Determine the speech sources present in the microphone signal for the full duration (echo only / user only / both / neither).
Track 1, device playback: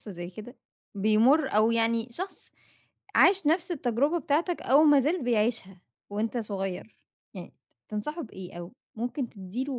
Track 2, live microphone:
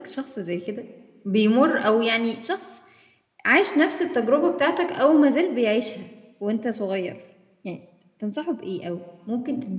echo only